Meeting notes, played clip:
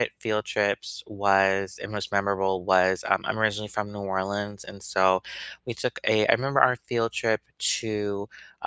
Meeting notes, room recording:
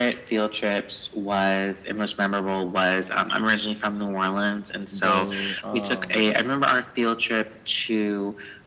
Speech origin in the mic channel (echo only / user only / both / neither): both